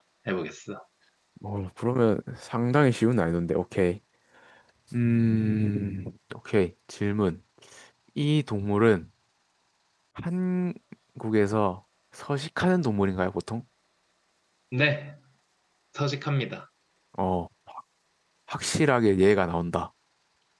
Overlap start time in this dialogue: none

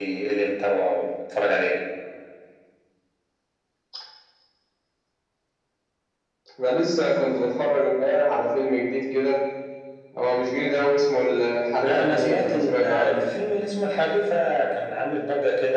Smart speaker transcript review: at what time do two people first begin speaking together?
11.8 s

